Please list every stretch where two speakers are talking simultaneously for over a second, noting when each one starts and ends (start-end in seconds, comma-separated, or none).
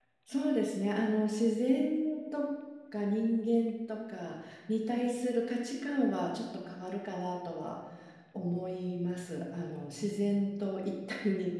none